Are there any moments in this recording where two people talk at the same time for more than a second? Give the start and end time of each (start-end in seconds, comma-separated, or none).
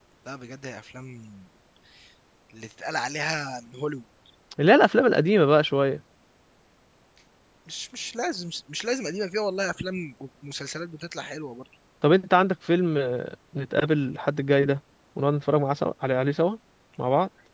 none